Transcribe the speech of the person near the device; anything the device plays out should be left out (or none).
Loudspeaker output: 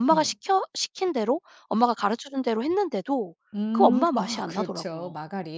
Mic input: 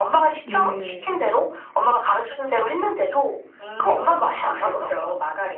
네.